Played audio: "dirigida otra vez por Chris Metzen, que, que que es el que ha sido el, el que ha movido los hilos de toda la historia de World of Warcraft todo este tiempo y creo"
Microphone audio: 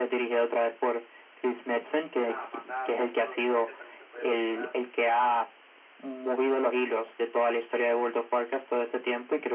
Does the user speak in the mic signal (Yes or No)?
Yes